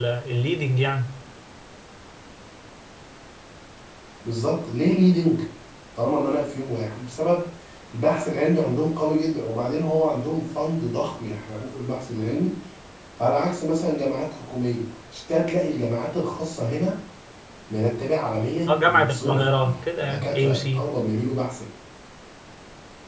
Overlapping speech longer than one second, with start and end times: 18.7-20.9

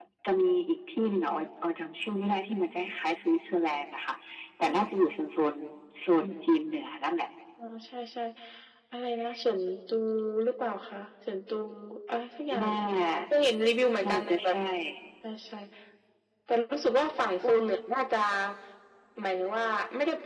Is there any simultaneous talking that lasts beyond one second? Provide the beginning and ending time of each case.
none

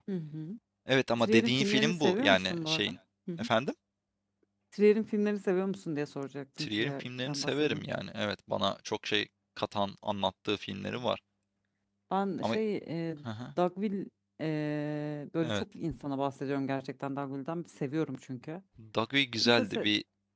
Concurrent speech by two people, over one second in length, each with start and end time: 1.2-3.0, 6.6-7.8

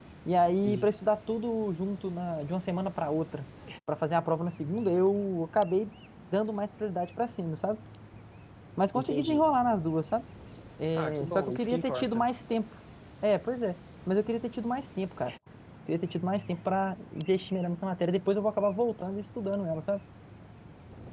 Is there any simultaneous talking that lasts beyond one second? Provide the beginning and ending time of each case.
10.9-12.2

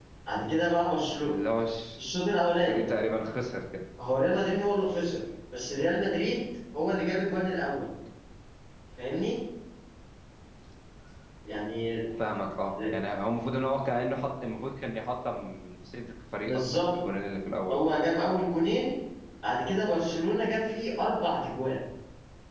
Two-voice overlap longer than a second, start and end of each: none

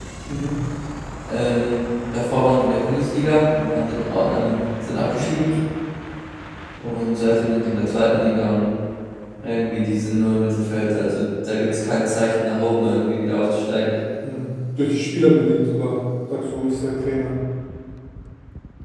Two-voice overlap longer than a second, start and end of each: none

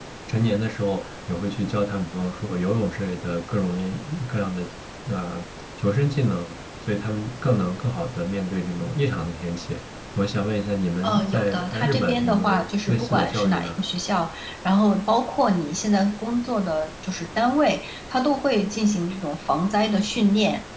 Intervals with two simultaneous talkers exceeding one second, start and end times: 11.0-13.8

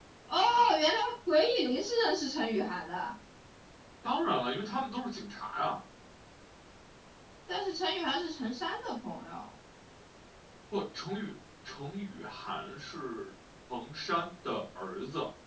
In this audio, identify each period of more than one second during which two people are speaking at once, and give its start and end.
none

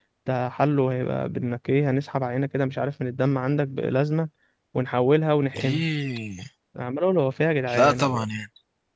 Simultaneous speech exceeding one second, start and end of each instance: none

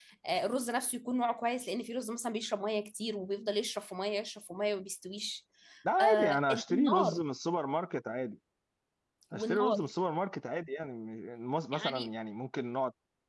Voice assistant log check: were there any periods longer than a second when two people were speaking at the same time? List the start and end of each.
6.0-7.2

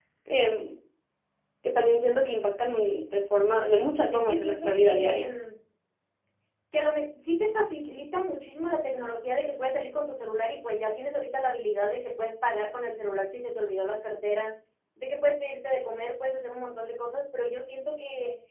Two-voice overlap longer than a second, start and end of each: 4.1-5.3

